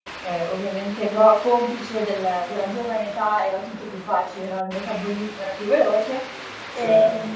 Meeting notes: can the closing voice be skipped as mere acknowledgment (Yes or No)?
Yes